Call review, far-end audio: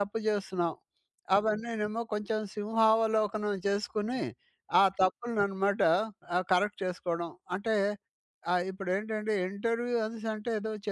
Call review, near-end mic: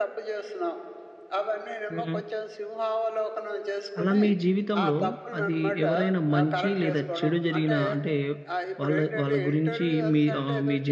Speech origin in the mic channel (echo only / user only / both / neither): both